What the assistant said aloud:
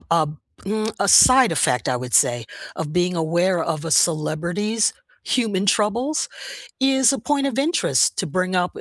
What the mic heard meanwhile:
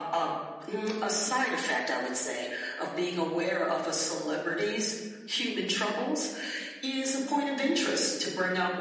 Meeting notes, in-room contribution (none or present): none